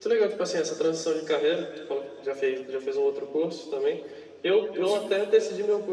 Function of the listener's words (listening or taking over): listening